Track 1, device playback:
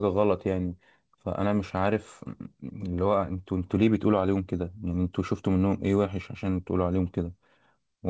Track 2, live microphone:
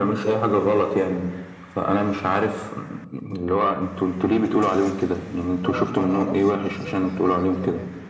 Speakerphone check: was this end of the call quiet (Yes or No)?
No